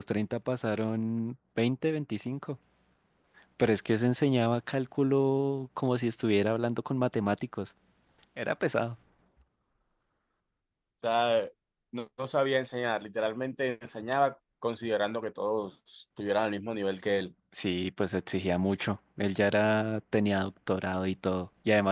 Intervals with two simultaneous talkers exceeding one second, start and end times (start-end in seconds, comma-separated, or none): none